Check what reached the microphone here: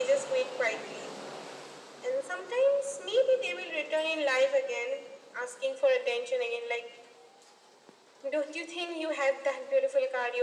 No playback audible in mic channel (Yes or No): No